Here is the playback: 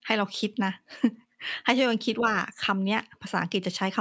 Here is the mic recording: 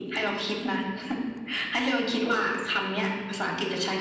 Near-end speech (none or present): none